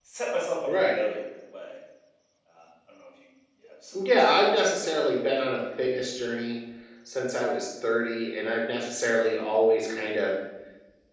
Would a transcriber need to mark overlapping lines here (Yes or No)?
Yes